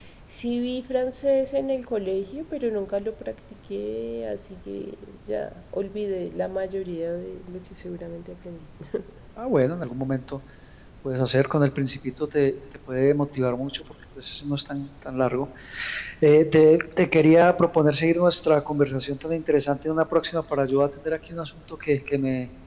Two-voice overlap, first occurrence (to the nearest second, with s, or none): none